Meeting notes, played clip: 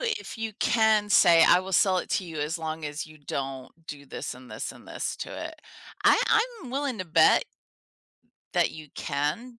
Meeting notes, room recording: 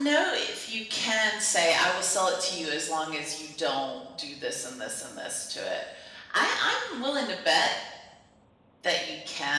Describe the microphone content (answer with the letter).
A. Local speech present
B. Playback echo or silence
B